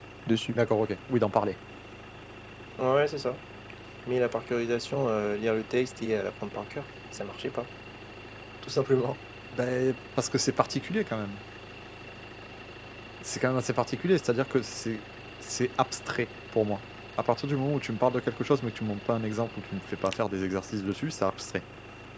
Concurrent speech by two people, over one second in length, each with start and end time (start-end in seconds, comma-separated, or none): none